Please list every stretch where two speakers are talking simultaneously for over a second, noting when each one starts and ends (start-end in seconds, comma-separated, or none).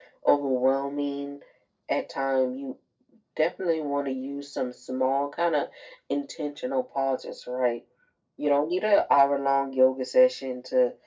none